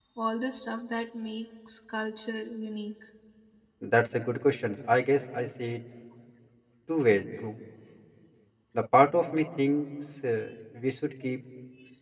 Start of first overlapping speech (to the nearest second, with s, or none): none